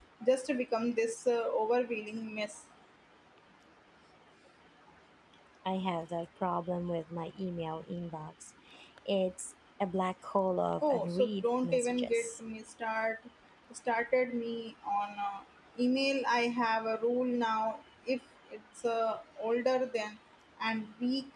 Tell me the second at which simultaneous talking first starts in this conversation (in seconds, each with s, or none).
10.8 s